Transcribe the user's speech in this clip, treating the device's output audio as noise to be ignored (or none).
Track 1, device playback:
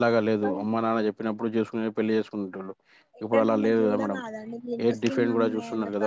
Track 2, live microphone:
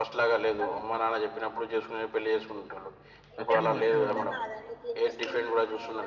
వచ్చిండు వచ్చిండు మేడం